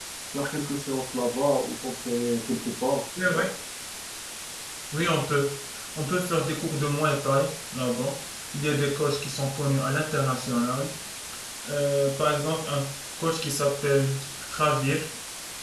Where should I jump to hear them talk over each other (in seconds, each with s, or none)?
none